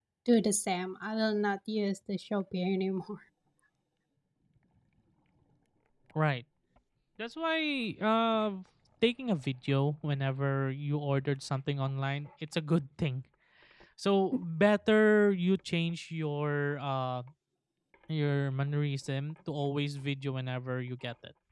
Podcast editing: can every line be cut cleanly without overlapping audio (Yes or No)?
Yes